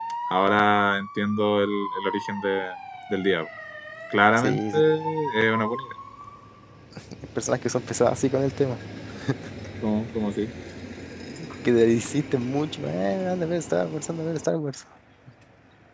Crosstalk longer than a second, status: none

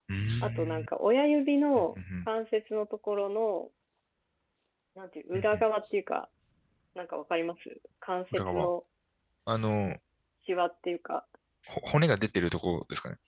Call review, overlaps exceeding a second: none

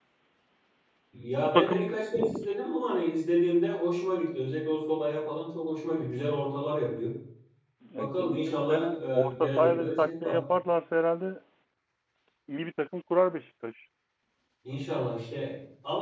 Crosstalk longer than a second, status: present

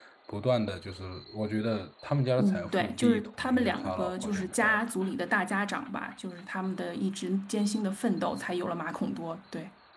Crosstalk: present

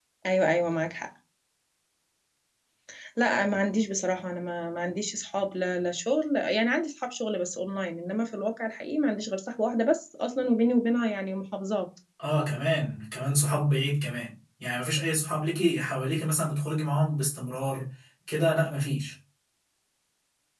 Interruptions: none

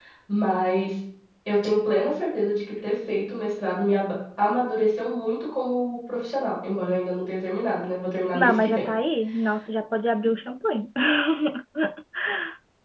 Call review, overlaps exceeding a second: none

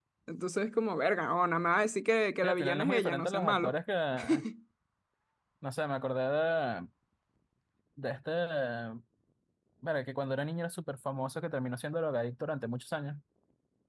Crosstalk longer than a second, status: present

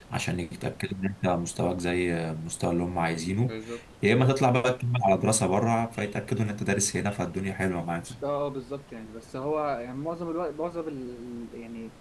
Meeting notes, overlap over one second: none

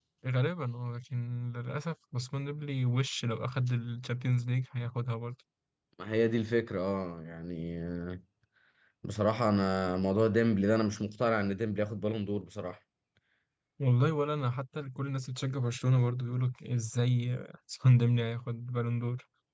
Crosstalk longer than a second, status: none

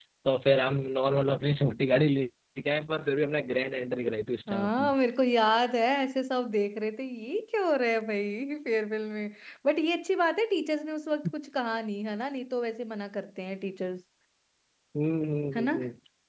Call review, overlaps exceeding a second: none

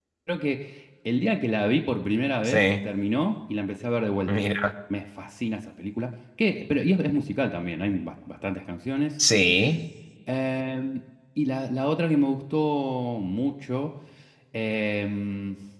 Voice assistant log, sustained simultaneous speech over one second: none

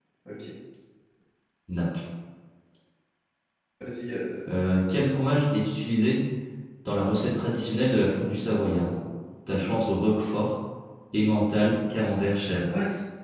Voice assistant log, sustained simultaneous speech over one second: none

